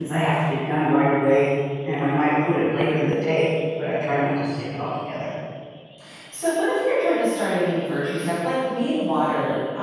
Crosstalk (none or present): none